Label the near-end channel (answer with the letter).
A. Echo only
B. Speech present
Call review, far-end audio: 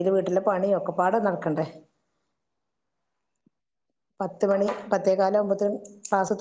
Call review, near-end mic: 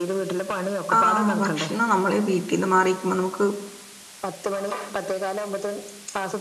B